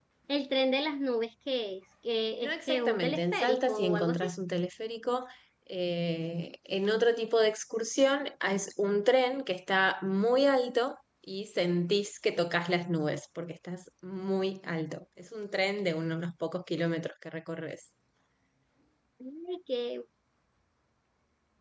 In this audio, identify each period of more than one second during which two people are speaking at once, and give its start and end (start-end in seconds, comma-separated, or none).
2.4-4.3